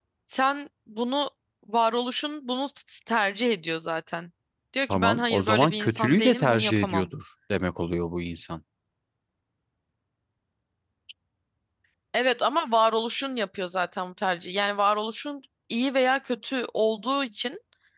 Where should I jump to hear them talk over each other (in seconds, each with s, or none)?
4.9 s